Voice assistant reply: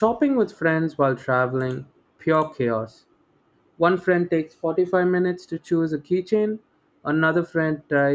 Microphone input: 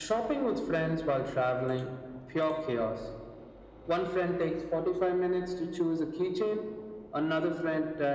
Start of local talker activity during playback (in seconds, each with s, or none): none